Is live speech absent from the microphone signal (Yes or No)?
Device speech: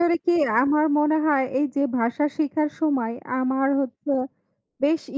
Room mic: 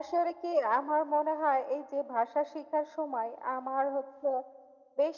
Yes